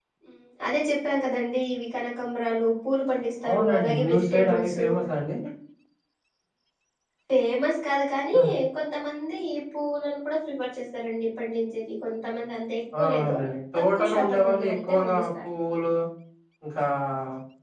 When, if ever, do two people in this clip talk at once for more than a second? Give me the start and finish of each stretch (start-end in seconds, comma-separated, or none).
3.5-4.8, 13.8-15.2